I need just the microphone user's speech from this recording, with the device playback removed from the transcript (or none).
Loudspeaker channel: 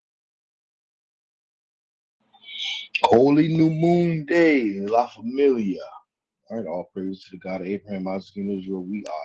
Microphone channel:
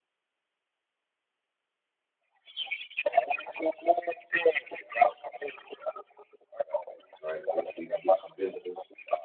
All right. Hopefully we get some visitors.